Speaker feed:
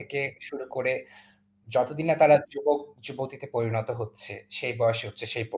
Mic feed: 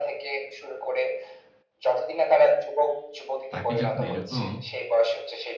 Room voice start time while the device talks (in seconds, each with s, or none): 3.5 s